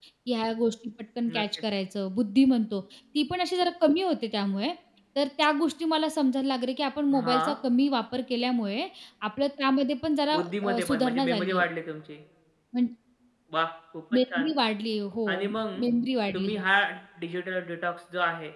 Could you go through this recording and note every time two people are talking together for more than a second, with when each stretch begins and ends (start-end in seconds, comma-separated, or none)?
10.3-11.7